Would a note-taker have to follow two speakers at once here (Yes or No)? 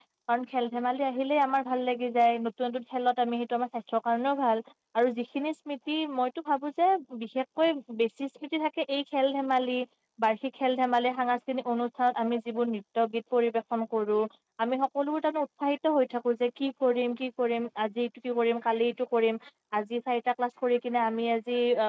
No